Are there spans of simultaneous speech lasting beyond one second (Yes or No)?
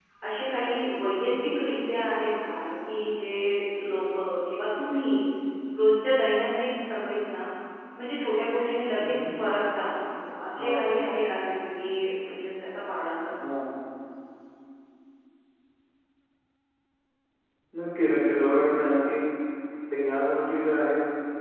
No